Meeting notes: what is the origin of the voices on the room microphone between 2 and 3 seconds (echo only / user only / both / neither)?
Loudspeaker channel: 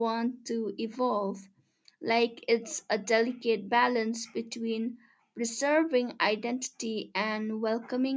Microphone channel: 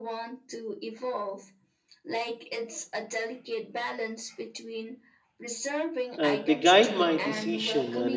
echo only